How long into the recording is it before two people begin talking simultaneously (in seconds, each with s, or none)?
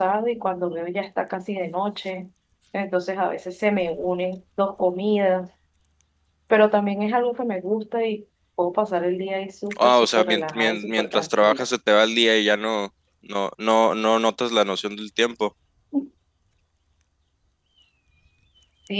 9.7 s